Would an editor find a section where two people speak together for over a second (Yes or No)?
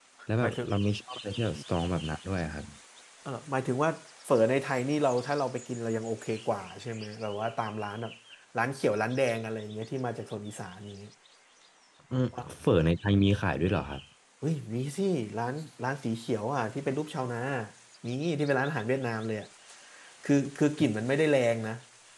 No